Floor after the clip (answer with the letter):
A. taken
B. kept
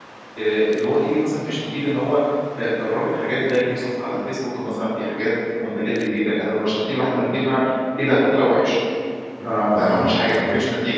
B